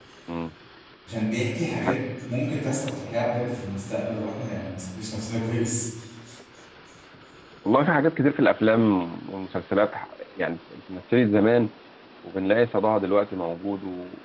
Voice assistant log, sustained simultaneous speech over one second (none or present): none